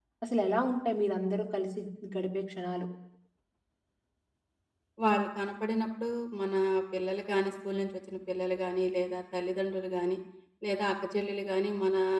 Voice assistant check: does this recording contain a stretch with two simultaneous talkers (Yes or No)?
No